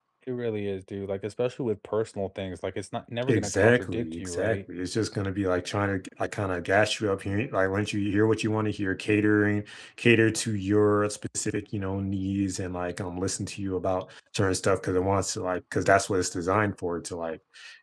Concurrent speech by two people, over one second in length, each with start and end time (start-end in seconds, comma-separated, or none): 3.3-4.6